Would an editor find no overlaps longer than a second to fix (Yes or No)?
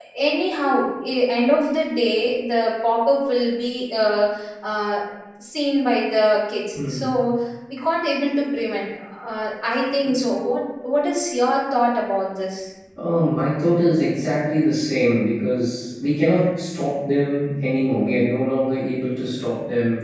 Yes